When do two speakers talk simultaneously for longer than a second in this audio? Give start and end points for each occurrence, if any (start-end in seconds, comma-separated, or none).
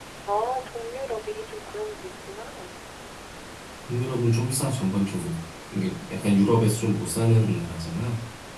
none